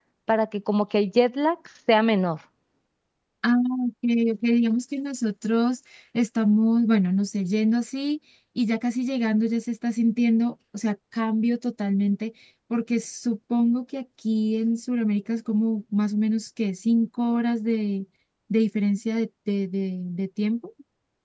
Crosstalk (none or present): none